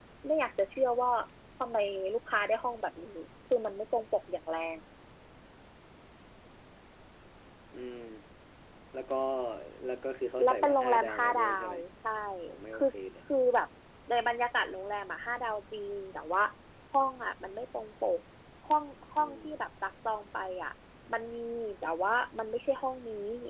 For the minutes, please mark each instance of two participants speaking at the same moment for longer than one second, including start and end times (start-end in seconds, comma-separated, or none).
10.4-11.8